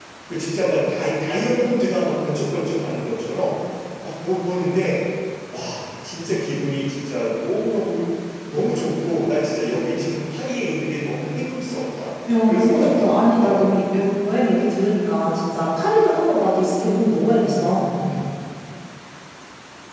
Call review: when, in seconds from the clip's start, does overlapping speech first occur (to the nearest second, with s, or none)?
12 s